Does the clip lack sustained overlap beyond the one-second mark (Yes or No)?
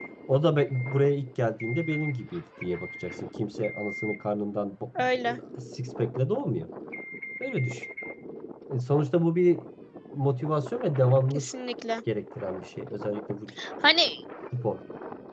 Yes